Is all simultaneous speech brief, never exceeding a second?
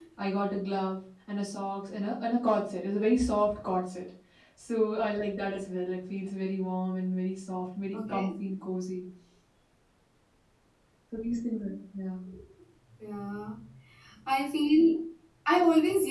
Yes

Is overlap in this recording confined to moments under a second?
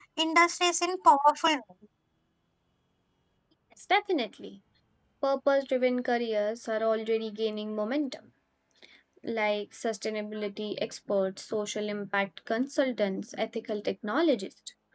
Yes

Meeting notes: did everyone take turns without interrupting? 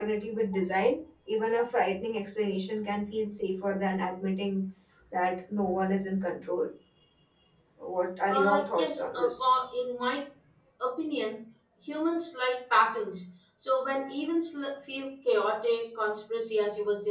No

